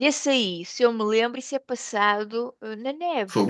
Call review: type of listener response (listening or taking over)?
taking over